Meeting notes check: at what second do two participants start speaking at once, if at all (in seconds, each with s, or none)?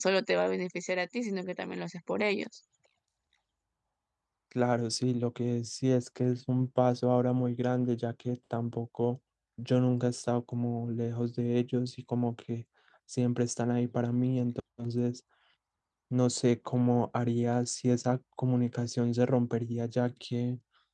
none